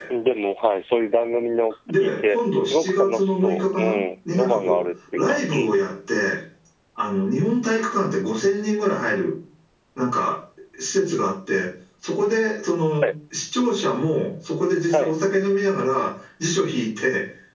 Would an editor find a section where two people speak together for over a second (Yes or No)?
Yes